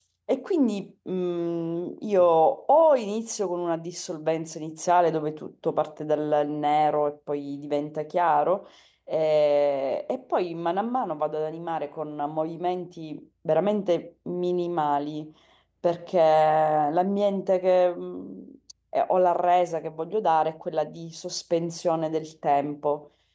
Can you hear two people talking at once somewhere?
No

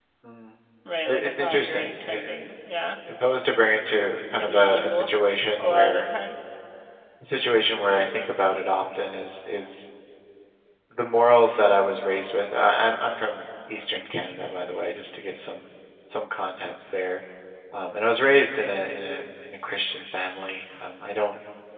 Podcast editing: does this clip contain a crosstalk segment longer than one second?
Yes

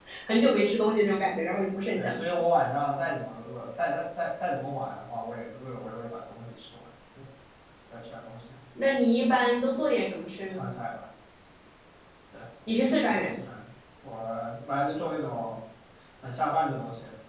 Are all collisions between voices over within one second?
Yes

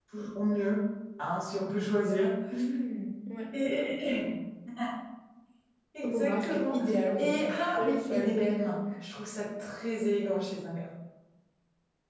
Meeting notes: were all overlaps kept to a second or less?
No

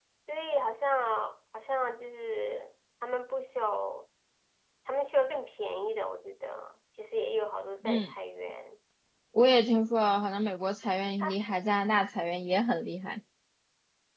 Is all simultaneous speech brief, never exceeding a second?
Yes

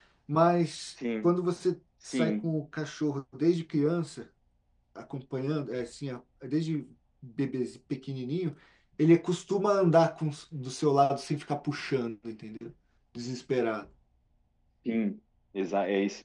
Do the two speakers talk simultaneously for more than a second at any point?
No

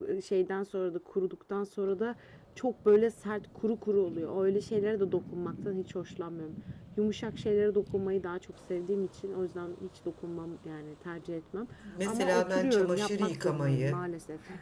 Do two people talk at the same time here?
Yes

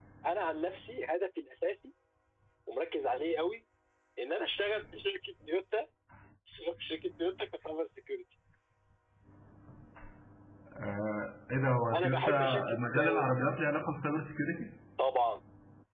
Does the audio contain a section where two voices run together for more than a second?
Yes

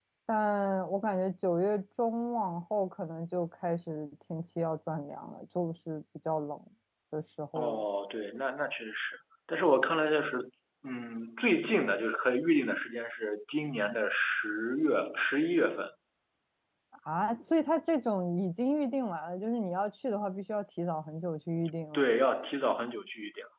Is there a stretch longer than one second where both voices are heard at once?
No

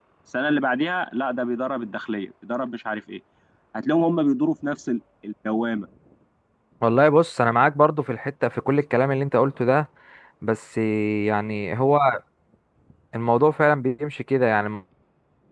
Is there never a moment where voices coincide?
Yes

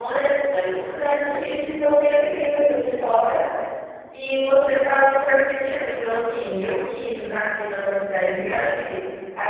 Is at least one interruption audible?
No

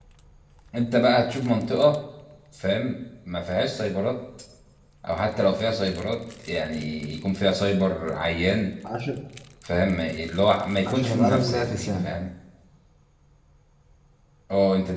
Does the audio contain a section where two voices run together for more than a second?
Yes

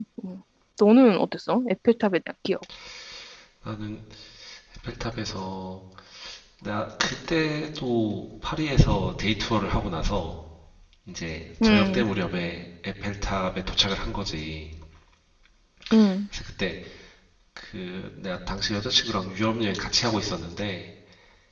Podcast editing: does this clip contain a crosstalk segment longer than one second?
No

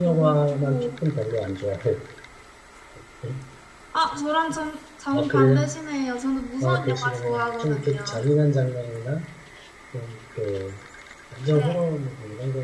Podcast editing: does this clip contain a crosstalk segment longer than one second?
Yes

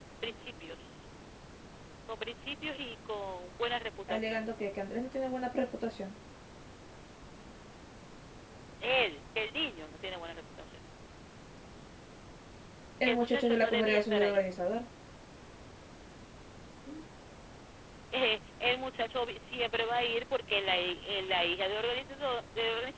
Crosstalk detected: Yes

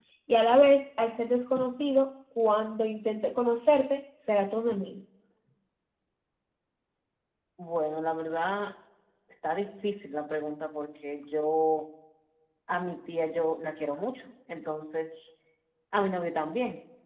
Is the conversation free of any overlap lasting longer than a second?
Yes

